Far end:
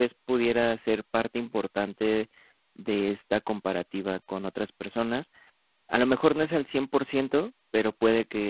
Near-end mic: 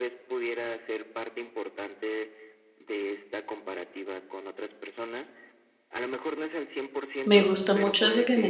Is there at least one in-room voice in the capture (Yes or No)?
Yes